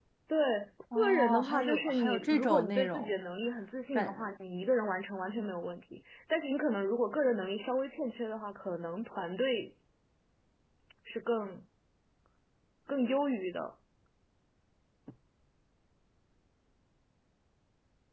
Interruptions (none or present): present